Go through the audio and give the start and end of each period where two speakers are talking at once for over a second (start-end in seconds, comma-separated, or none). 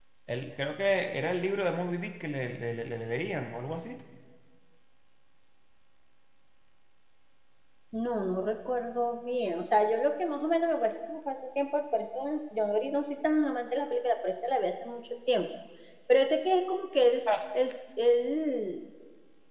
none